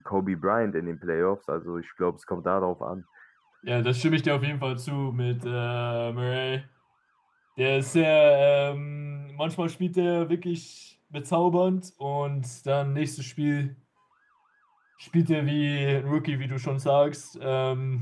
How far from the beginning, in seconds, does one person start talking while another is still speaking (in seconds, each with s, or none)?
none